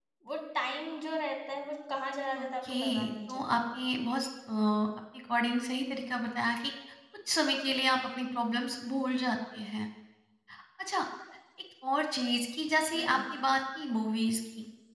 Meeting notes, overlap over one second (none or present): present